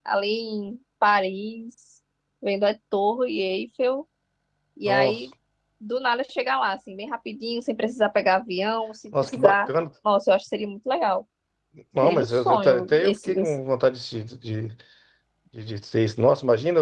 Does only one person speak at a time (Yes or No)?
No